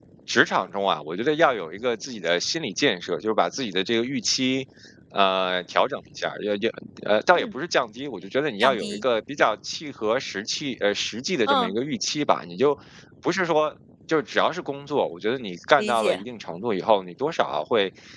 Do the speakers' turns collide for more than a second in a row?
No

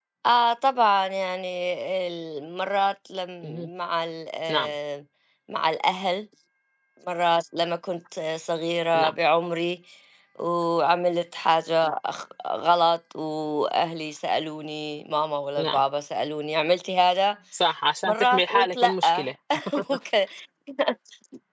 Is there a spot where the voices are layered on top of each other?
Yes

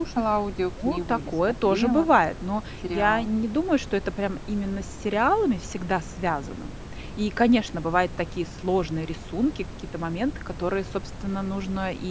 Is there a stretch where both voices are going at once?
Yes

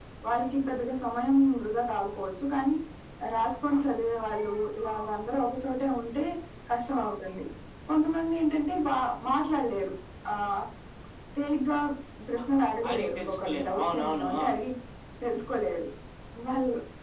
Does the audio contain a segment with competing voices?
Yes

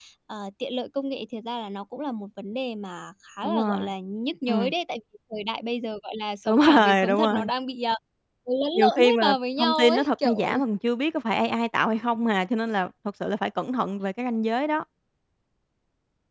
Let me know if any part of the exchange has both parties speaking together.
Yes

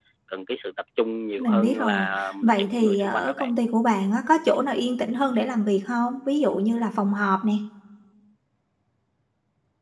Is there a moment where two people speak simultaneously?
Yes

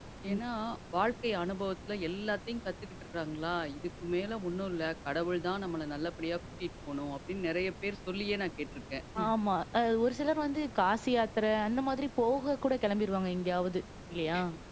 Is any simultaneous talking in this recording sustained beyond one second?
No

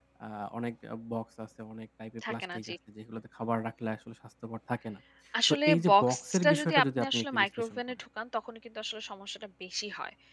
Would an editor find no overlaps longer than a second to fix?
No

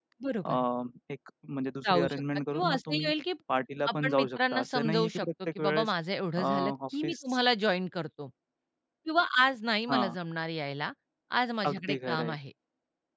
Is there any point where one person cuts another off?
Yes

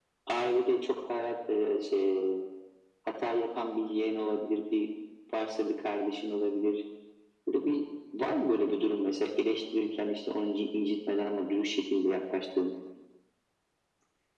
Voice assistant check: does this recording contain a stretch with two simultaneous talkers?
No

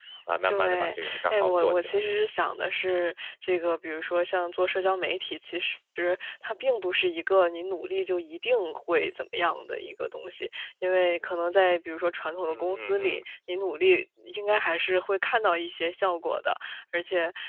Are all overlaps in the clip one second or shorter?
No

